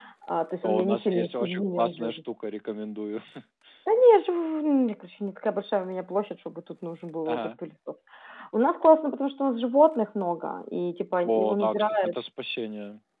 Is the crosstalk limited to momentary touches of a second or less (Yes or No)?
No